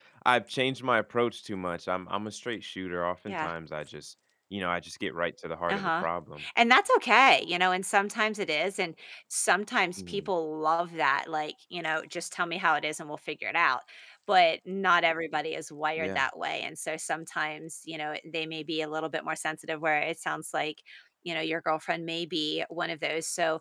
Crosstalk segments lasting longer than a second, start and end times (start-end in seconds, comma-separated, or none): none